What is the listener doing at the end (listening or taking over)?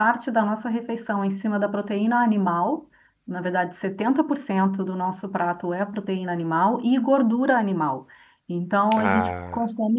listening